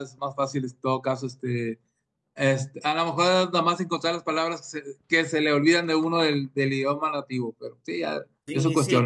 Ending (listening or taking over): taking over